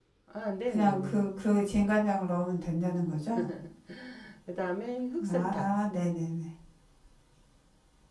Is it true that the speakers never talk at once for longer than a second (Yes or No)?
Yes